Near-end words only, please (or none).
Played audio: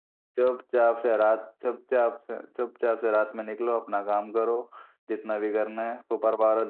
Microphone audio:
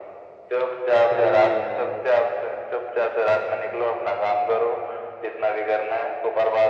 सही है यार